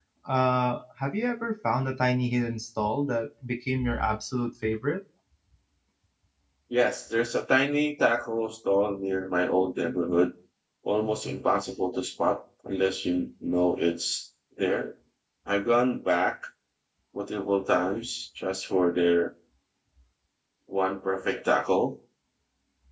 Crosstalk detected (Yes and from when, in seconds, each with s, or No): No